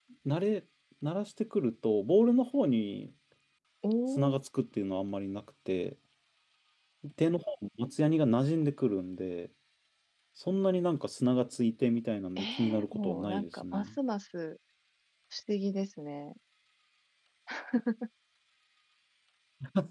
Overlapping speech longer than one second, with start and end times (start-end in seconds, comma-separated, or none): 12.4-13.9